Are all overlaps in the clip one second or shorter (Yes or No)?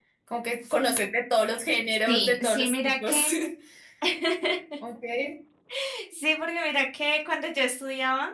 No